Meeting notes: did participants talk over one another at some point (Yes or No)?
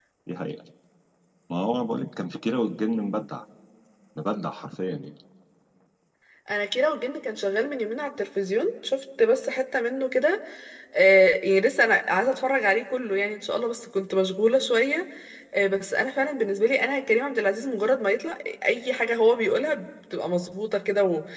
No